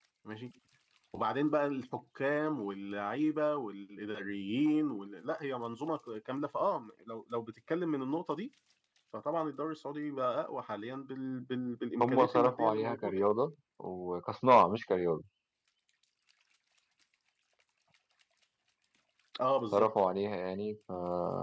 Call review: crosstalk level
present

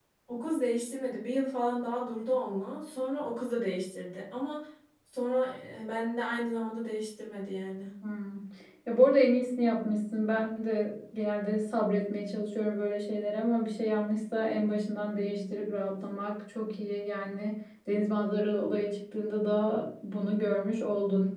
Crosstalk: none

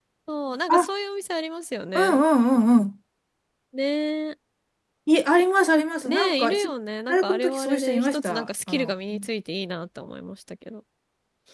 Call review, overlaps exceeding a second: present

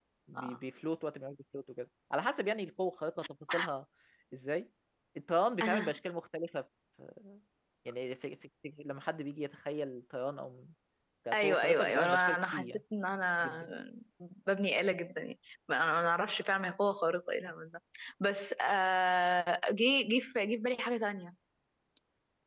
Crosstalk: present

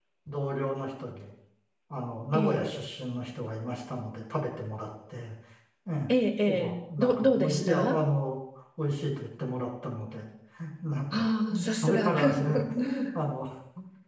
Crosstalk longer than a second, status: present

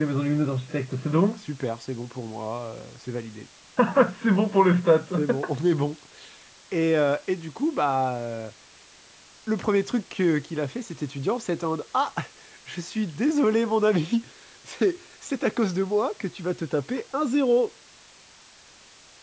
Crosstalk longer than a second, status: none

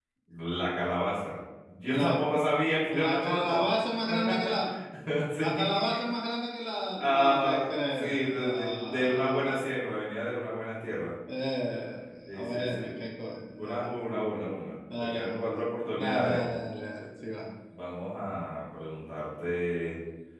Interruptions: present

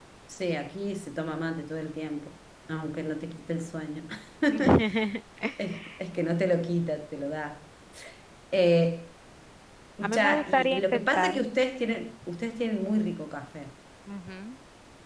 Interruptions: present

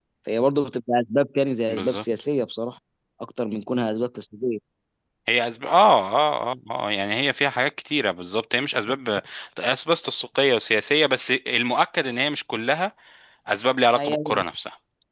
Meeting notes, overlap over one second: none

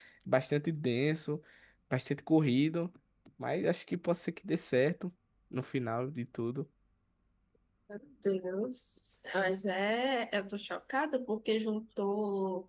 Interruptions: none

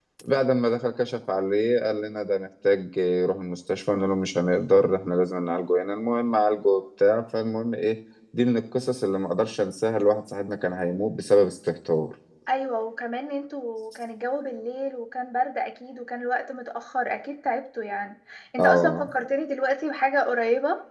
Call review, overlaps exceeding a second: none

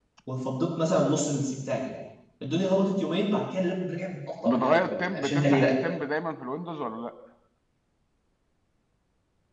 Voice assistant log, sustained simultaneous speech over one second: present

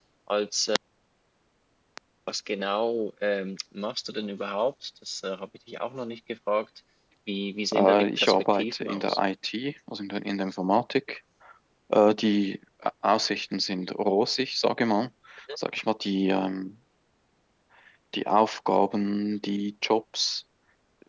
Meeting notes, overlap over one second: present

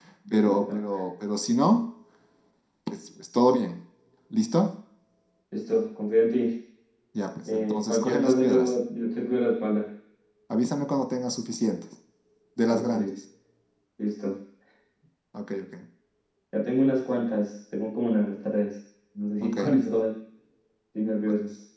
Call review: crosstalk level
present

